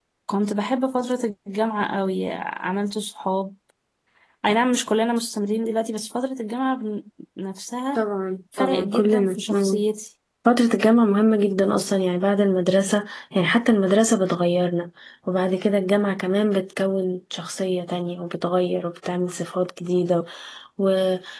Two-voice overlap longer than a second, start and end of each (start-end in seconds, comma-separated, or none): 8.6-9.8